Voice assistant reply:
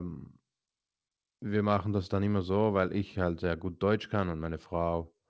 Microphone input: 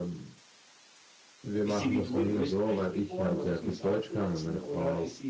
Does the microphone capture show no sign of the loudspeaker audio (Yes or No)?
No